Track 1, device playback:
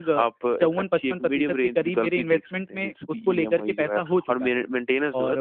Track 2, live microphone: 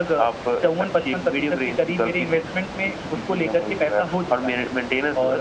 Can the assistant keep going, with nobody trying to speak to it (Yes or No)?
Yes